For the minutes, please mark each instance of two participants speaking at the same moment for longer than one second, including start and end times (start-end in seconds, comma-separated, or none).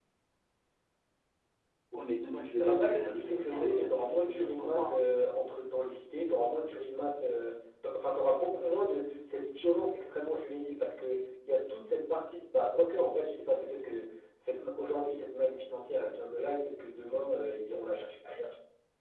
2.6-5.0